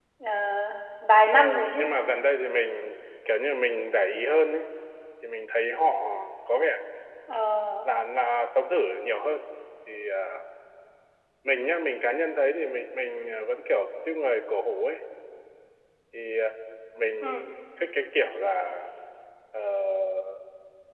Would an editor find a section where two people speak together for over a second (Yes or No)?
No